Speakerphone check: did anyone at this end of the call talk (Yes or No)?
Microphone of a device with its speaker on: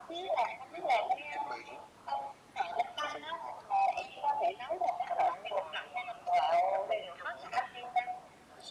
No